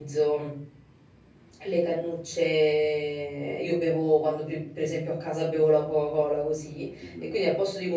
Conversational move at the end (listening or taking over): listening